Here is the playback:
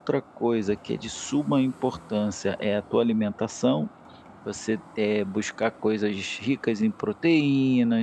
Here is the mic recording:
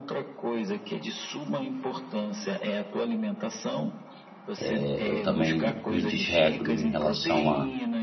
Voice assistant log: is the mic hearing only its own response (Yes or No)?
No